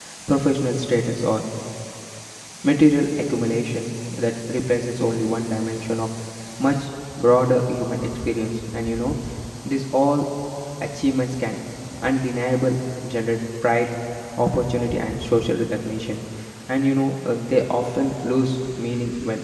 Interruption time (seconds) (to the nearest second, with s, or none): none